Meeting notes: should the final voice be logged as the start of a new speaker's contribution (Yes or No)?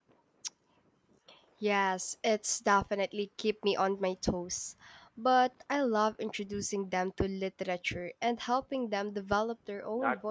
Yes